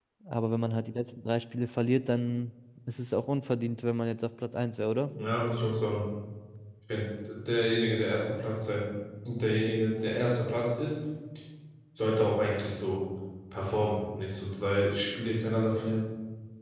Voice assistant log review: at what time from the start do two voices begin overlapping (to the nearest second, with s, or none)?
none